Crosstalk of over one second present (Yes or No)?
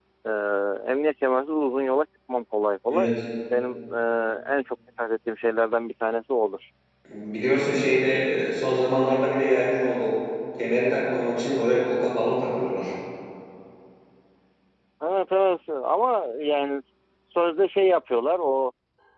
No